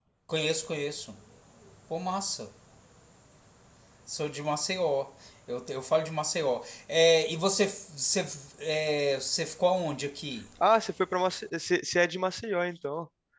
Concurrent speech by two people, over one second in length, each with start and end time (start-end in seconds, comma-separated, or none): none